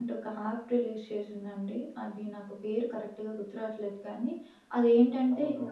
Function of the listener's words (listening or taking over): listening